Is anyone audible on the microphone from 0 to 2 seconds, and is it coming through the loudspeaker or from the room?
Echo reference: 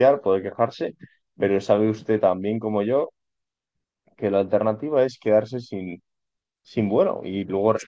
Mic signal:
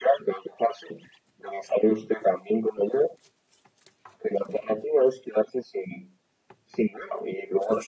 echo only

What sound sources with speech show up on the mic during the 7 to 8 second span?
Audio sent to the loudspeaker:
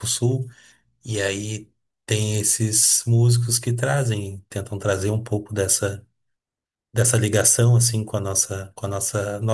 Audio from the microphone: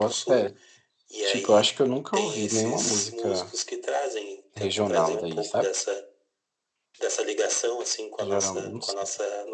echo only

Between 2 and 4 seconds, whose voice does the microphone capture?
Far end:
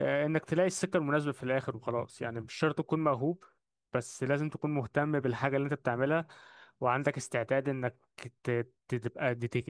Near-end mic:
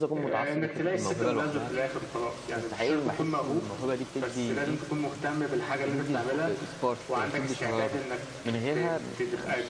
both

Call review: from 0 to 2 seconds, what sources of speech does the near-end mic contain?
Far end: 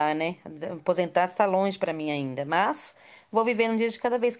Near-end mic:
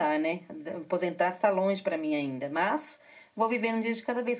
echo only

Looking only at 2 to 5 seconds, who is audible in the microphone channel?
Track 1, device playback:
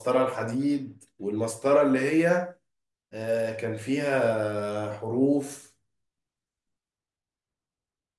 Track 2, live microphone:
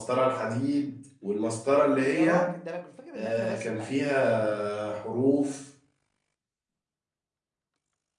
both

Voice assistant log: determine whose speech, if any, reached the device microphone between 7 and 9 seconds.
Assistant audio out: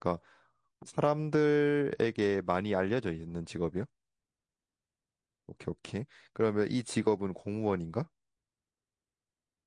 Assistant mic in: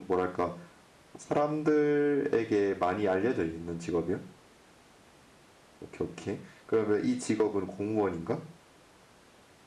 echo only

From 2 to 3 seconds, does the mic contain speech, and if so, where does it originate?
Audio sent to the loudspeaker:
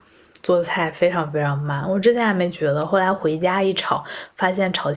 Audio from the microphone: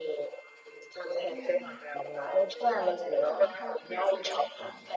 both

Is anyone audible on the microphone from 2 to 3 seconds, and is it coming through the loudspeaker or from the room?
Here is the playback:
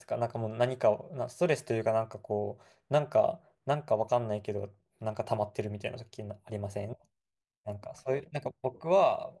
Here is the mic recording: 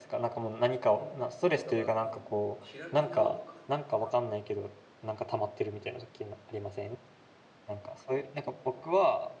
both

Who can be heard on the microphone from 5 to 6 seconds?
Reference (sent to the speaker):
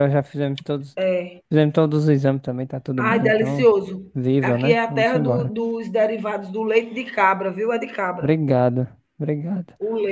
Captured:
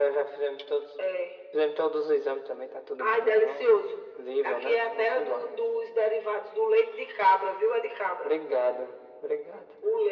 echo only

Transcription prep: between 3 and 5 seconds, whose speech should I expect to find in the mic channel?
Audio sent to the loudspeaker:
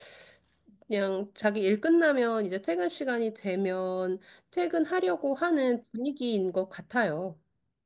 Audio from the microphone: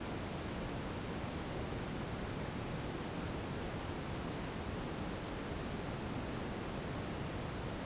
neither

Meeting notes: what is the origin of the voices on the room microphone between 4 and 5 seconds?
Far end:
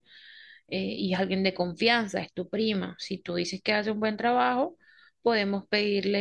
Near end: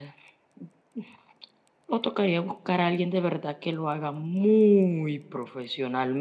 user only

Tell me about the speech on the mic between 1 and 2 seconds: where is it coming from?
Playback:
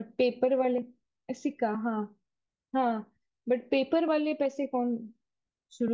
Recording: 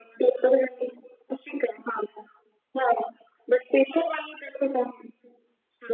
echo only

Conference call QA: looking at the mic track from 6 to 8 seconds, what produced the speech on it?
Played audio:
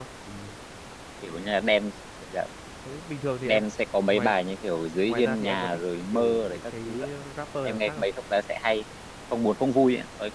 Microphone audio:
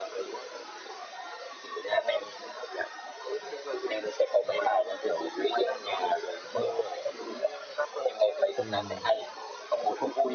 echo only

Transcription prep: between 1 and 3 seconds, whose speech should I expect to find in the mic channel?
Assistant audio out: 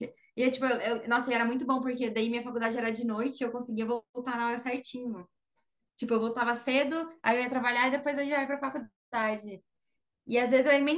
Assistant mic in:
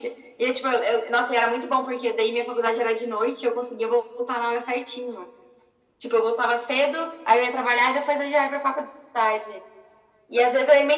echo only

